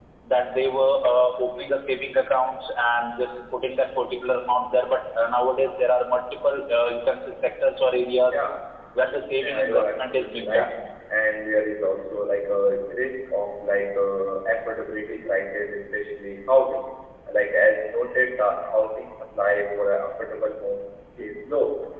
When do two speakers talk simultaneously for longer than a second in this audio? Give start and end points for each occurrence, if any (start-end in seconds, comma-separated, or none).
9.4-10.7